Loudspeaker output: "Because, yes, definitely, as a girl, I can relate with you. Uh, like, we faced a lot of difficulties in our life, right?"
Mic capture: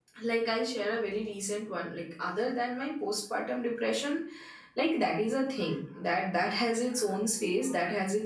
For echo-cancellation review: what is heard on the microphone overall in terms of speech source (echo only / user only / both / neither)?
user only